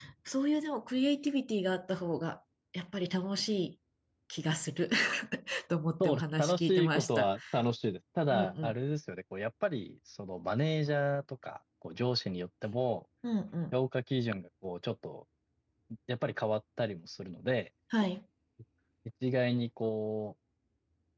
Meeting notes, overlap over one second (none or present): present